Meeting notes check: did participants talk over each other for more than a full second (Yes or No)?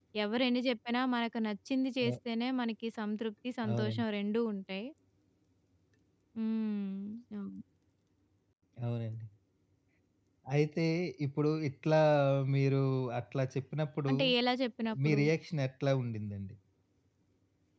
No